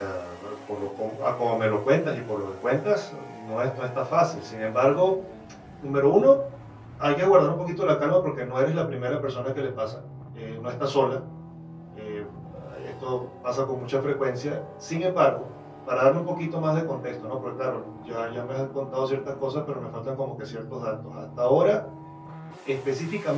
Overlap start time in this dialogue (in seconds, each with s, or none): none